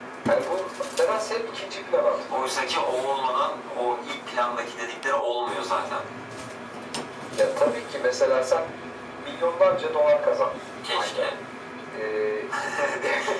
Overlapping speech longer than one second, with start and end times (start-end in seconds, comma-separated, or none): none